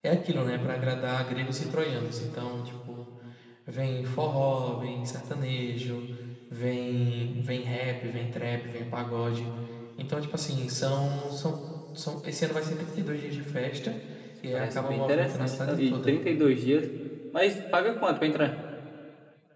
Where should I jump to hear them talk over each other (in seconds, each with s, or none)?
14.5 s